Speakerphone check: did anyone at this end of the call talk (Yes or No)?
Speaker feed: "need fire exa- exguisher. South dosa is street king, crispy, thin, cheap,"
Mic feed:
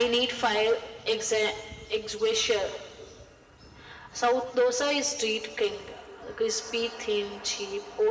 No